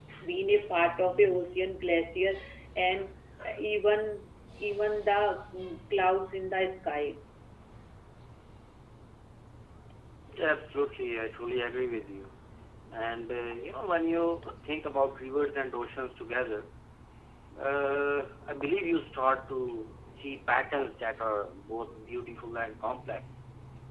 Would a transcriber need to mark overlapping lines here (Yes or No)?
No